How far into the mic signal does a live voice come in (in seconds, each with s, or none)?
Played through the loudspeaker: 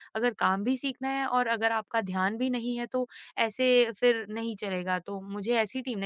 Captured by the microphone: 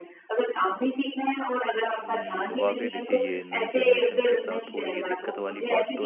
2.0 s